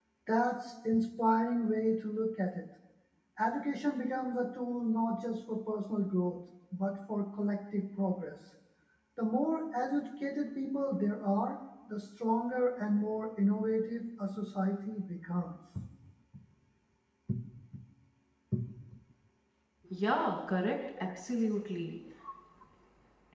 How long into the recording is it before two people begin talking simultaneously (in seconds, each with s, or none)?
none